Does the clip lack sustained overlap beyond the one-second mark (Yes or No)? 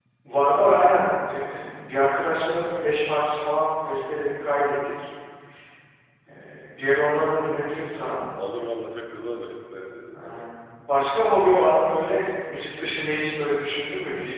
Yes